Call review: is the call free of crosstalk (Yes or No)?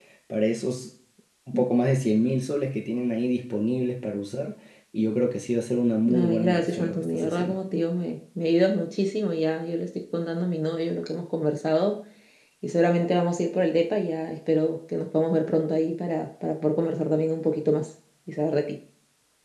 No